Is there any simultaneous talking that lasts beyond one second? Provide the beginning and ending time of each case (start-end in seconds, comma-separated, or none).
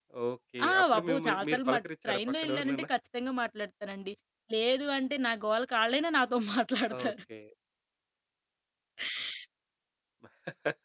0.7-2.9